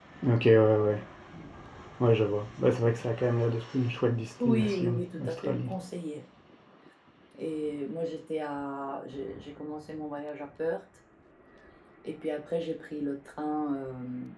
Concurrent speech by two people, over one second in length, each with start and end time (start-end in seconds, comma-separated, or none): 4.4-5.7